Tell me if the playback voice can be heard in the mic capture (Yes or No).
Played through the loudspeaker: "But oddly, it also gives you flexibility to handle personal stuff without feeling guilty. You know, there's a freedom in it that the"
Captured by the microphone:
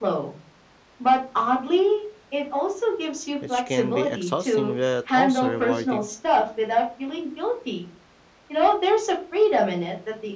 Yes